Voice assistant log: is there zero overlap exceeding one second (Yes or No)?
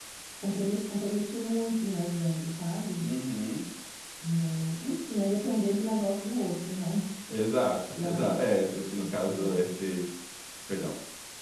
No